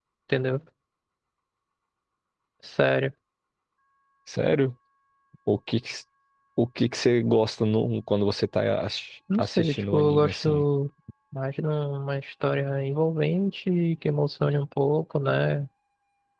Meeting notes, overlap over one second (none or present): present